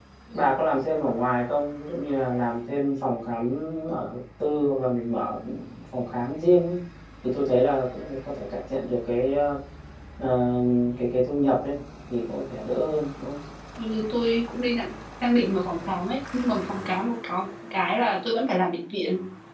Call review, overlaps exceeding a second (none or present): none